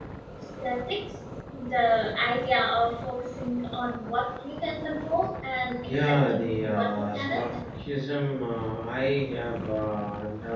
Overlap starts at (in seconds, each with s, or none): 5.8 s